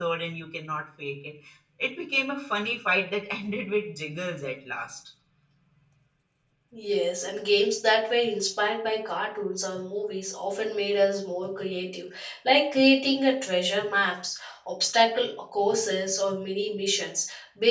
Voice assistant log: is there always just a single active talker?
Yes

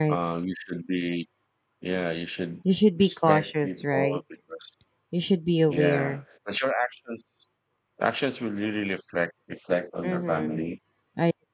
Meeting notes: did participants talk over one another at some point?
Yes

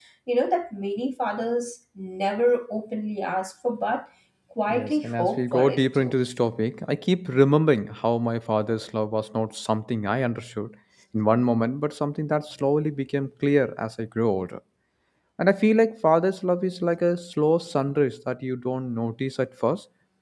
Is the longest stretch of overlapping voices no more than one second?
No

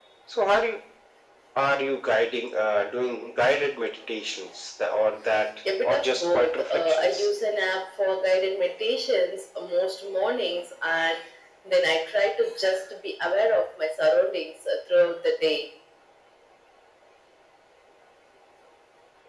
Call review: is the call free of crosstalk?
No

